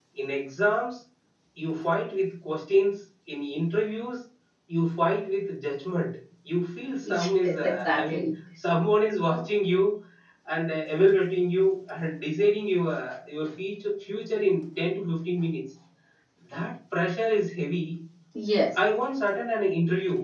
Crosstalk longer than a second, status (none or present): present